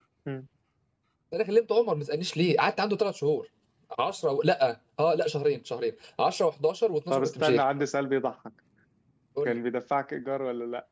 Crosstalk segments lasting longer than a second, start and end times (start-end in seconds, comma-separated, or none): none